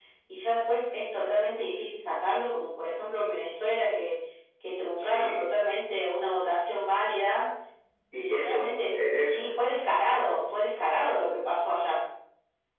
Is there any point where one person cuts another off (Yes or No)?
Yes